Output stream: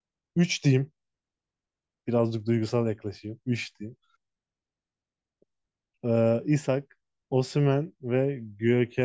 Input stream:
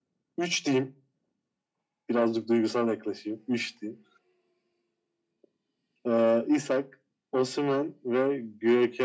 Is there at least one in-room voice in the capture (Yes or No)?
No